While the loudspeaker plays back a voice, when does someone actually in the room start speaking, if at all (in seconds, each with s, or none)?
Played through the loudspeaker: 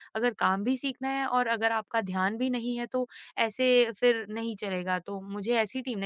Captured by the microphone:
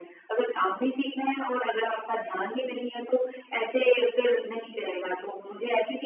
none